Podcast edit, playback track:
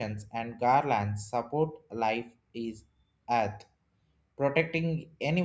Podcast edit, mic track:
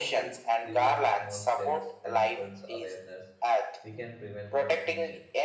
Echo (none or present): present